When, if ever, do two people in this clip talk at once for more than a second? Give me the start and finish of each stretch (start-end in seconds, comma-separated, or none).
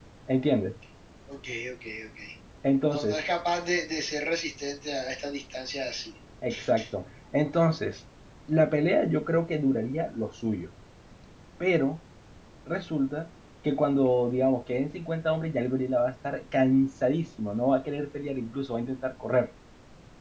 none